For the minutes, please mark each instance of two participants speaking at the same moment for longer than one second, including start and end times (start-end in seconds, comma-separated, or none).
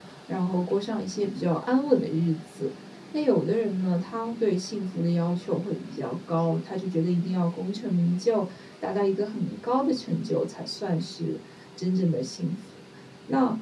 none